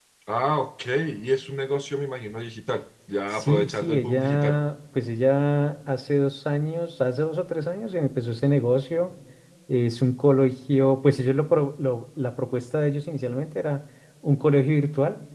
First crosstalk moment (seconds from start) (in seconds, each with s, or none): 3.3 s